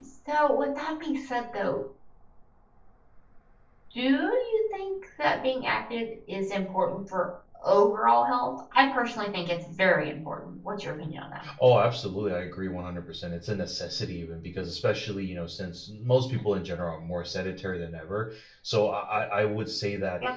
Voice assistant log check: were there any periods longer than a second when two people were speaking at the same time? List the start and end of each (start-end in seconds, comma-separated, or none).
none